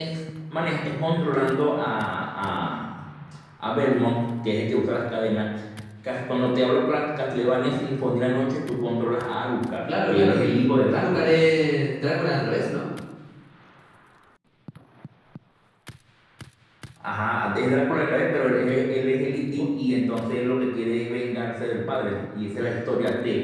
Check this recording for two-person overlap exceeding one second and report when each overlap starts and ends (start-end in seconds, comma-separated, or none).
9.9-11.3